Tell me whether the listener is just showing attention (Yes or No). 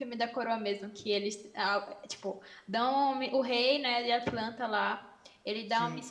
Yes